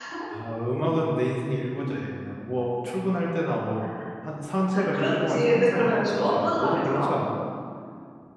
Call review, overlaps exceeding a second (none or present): present